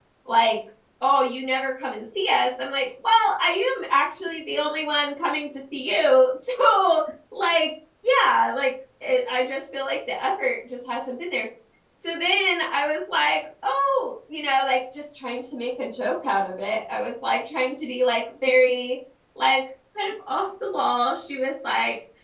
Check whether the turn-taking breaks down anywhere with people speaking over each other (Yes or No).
No